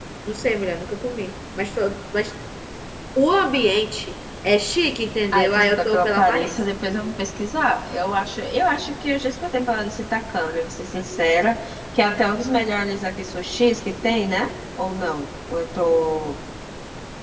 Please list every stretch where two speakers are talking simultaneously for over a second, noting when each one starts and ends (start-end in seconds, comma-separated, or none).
5.3-6.5